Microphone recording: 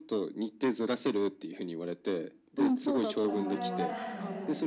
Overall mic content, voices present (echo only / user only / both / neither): both